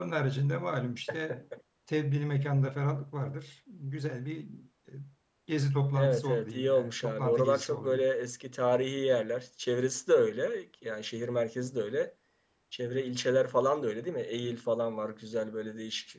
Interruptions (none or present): present